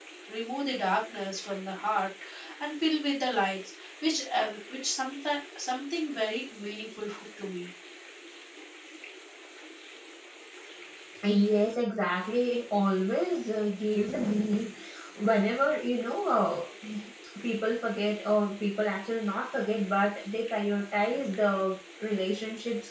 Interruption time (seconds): none

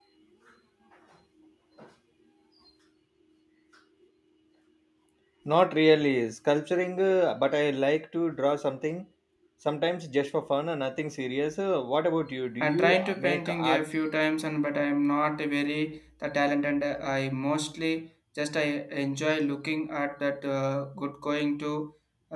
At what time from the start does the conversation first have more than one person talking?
12.6 s

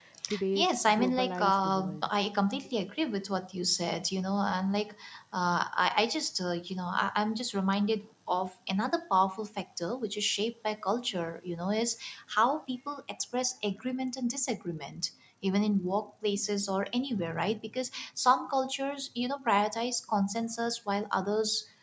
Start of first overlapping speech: 0.6 s

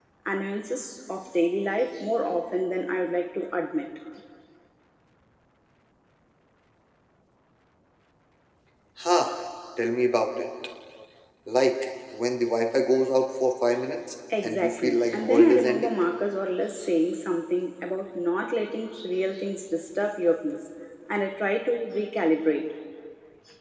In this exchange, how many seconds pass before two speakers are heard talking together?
14.3 s

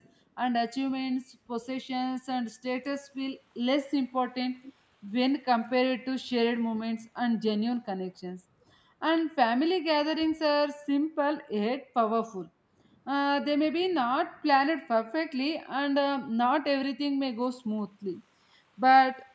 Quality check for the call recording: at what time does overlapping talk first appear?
none

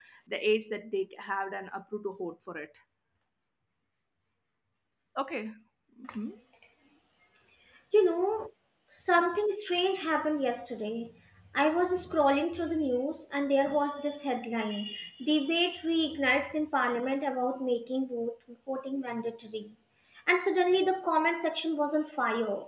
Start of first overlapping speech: none

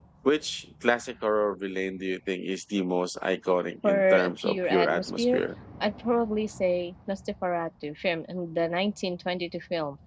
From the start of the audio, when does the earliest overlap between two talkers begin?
3.8 s

